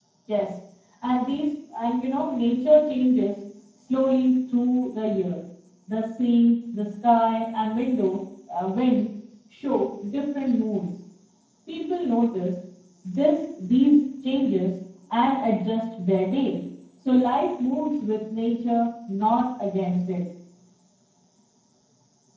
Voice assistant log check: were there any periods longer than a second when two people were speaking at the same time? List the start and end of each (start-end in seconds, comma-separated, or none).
none